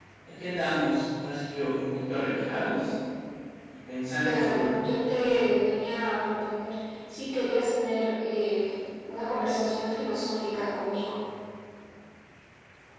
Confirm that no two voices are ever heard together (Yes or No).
No